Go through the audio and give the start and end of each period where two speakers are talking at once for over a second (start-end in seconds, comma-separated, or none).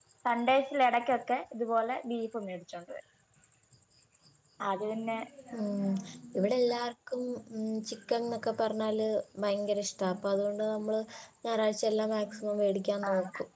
none